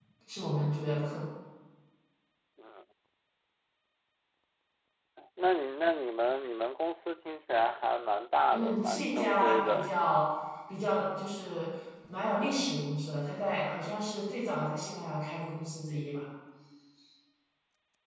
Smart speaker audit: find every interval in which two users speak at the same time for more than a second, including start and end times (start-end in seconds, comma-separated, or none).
8.5-9.9